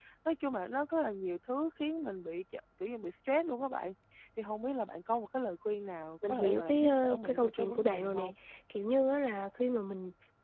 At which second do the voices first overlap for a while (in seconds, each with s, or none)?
6.2 s